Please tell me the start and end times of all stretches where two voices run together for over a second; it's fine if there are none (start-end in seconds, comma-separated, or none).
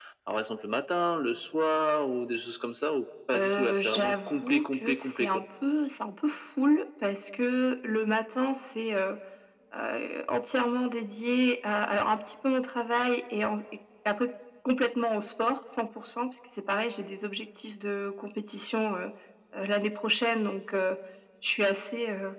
3.4-5.4